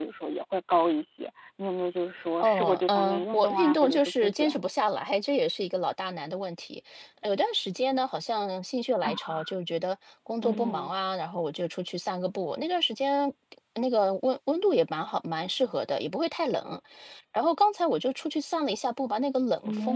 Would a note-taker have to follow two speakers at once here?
Yes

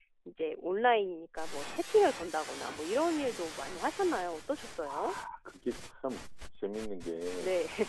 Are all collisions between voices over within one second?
Yes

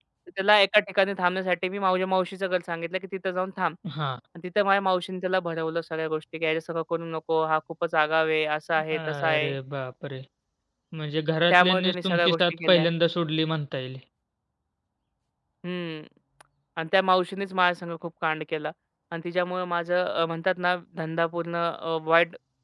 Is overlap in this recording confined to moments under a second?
No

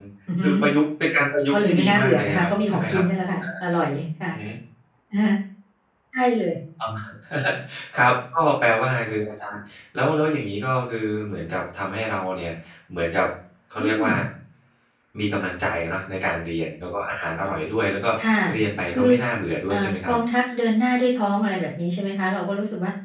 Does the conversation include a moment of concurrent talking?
Yes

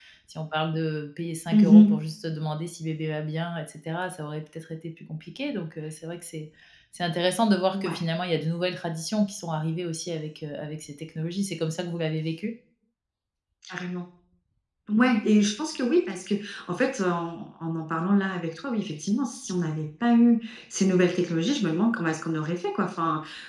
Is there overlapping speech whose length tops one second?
No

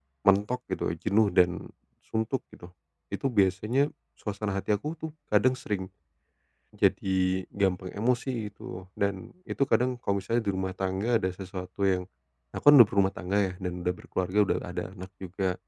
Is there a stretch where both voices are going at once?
No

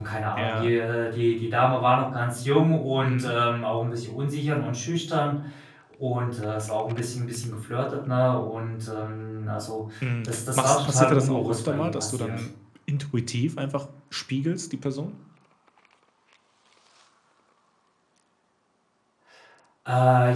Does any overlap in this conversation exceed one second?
Yes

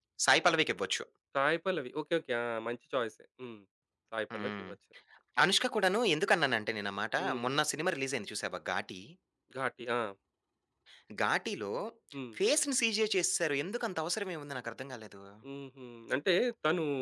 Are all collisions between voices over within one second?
Yes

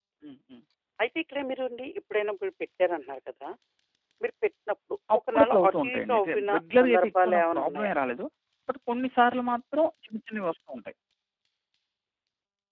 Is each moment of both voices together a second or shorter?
No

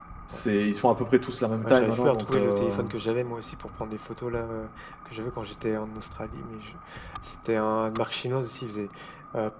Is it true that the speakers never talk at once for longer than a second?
No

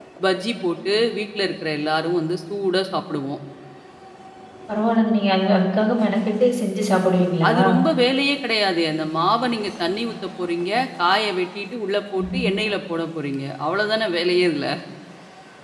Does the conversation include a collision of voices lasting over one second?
No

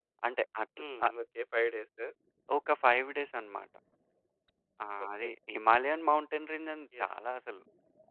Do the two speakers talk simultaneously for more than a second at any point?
No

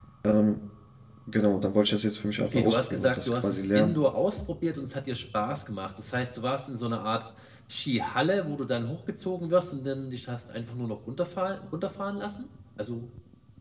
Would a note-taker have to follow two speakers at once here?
Yes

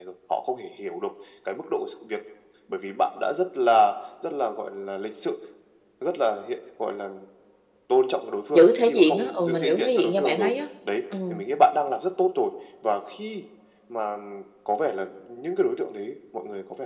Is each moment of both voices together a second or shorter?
No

